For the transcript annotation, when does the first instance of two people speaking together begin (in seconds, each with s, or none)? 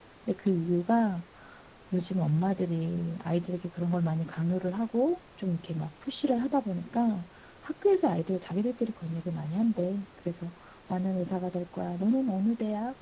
none